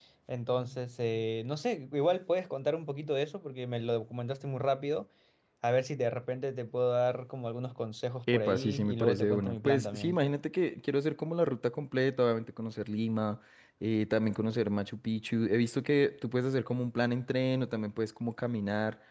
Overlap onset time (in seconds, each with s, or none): 8.3 s